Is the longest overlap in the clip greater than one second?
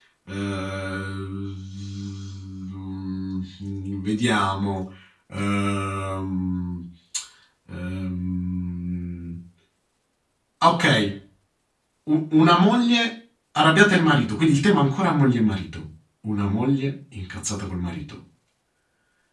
No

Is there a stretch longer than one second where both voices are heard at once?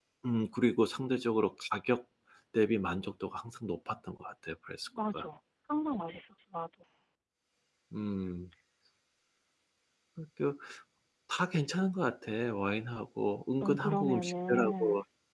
Yes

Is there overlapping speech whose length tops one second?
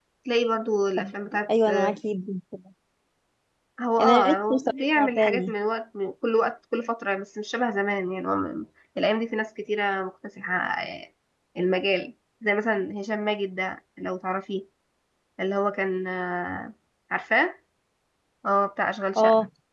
Yes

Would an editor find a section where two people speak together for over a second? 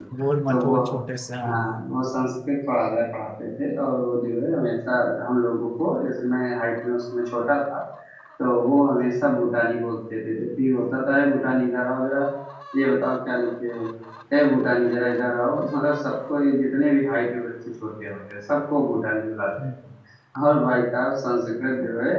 No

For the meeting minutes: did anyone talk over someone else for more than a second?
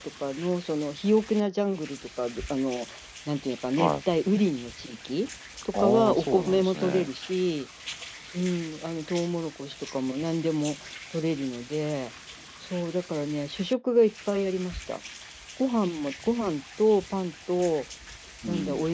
Yes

